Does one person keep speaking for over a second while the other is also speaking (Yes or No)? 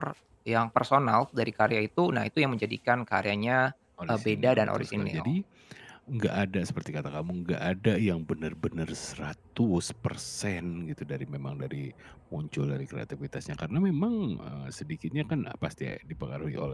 Yes